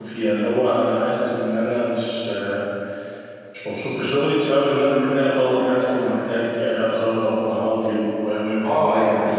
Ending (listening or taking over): taking over